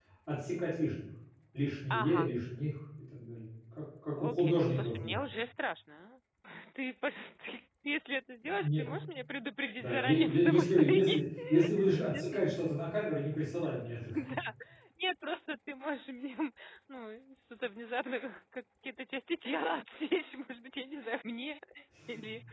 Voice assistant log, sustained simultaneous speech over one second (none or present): present